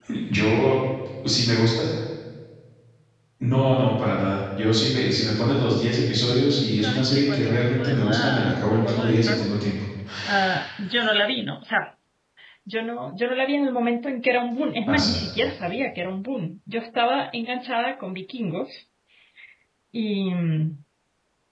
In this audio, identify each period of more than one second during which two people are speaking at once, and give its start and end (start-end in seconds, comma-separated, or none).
6.7-9.6